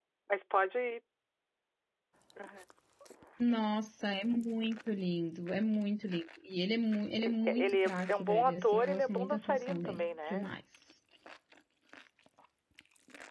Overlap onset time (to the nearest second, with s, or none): 7 s